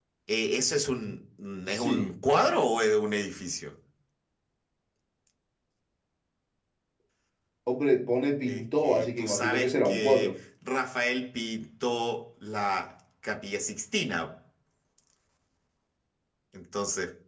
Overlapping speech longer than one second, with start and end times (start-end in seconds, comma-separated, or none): 8.5-10.3